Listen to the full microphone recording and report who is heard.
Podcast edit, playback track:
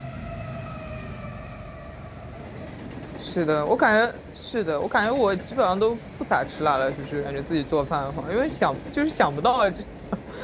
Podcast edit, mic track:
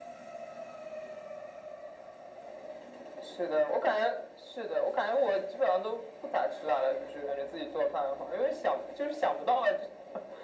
echo only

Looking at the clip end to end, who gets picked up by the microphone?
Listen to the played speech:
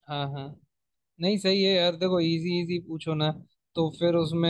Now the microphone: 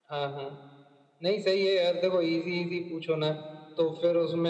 echo only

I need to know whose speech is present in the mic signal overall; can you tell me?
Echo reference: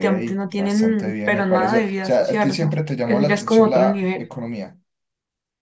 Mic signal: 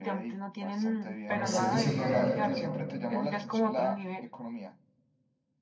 both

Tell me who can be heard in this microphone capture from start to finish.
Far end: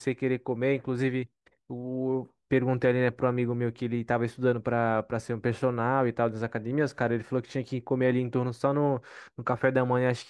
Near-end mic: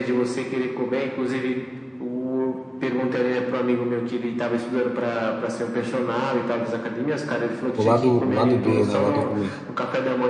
both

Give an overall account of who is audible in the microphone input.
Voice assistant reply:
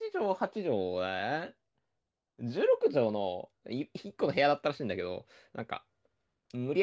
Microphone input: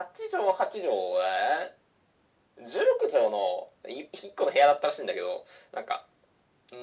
echo only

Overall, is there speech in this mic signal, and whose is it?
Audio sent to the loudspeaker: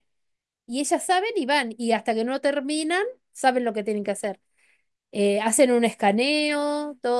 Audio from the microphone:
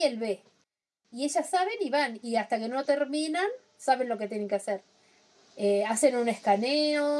echo only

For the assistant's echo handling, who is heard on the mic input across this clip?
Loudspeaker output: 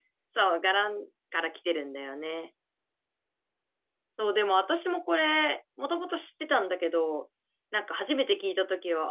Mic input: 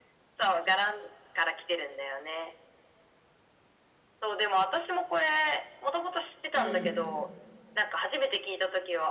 both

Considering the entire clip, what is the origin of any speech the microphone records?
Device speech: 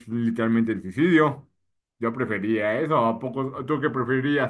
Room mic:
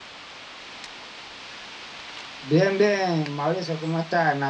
user only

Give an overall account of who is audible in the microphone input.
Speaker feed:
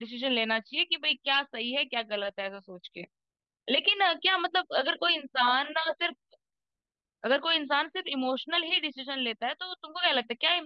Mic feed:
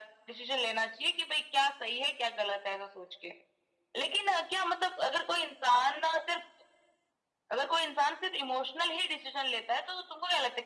echo only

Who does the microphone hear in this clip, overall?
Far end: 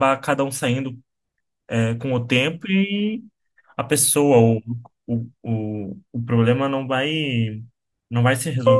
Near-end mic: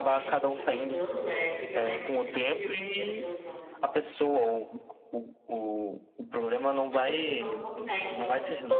both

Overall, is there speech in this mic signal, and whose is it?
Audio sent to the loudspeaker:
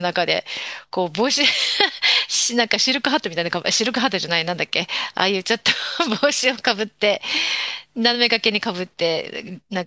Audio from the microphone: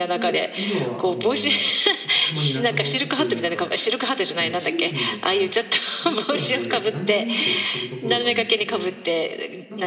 both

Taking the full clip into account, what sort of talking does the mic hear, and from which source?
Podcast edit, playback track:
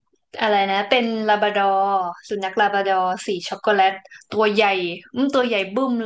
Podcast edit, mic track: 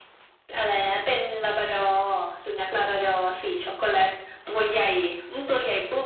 echo only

